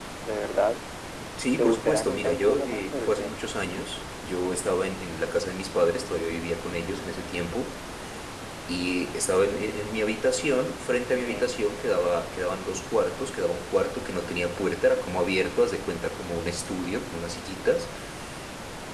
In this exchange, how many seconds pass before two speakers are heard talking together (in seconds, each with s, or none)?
1.6 s